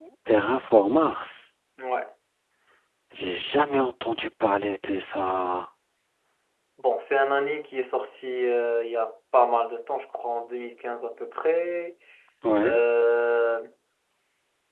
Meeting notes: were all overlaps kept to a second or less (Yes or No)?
Yes